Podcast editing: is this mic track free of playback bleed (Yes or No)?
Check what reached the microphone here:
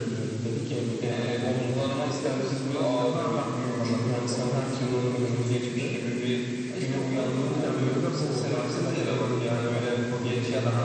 No